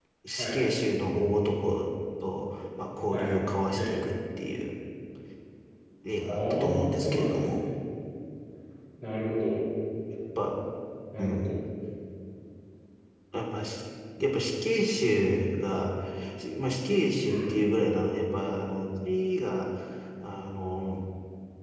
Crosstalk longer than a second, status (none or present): present